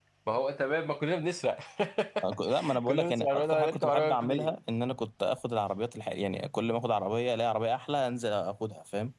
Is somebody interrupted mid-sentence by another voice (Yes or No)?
Yes